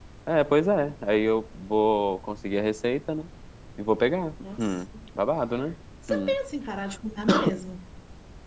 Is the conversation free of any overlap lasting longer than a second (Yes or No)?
Yes